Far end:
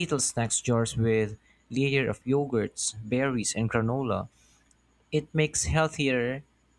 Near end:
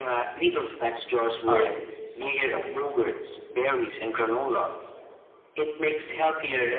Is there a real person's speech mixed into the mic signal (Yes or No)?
Yes